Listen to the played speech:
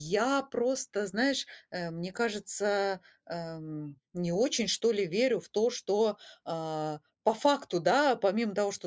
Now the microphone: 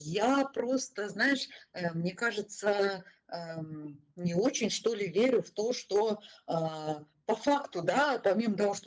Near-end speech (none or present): none